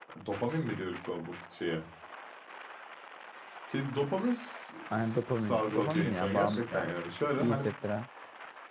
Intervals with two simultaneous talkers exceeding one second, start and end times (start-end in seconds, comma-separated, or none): 4.9-6.9